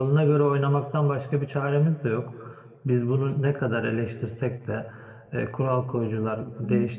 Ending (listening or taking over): listening